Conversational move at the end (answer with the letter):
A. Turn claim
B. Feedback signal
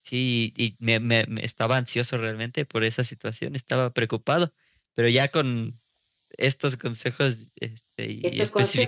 A